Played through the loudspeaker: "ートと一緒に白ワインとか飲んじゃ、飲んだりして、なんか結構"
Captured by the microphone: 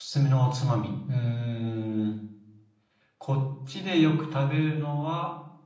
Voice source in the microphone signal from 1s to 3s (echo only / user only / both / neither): user only